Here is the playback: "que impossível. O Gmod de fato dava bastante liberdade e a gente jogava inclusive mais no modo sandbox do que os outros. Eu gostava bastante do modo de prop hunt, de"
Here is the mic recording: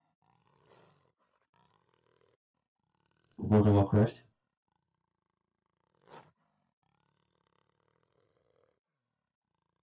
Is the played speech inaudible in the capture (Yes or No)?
Yes